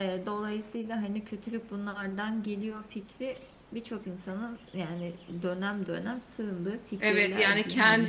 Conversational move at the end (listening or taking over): taking over